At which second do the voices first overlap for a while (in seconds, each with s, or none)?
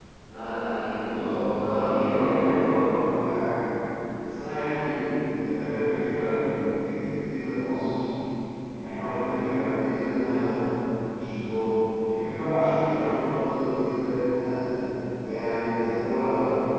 1.2 s